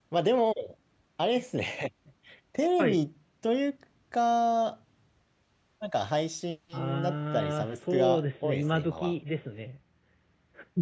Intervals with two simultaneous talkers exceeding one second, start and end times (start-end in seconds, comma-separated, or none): 7.0-9.1